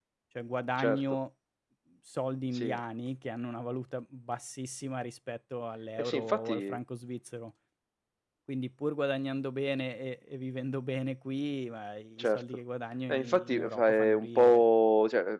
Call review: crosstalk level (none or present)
present